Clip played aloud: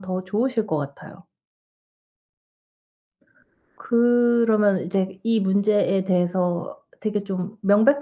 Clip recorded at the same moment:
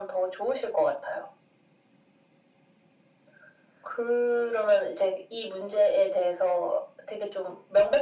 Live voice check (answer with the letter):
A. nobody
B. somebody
A